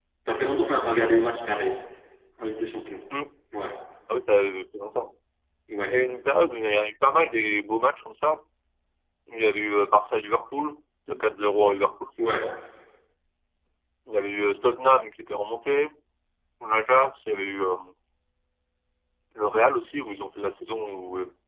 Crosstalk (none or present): none